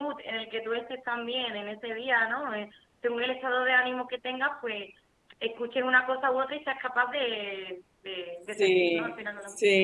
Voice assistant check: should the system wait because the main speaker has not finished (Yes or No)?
No